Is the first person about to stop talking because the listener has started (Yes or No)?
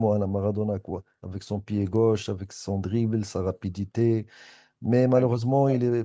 No